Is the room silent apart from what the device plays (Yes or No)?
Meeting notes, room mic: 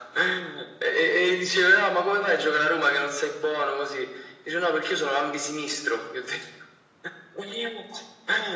Yes